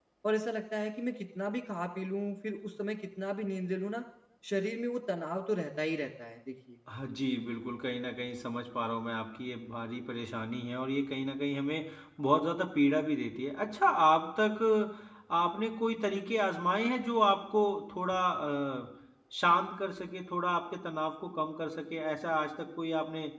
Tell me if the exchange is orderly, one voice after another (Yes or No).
Yes